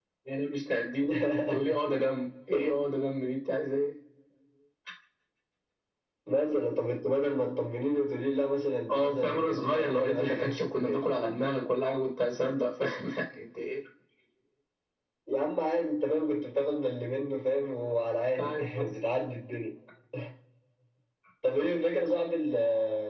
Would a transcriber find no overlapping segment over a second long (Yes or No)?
No